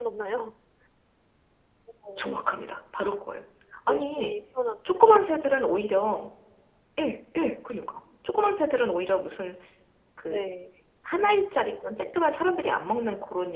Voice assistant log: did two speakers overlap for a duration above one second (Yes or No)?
No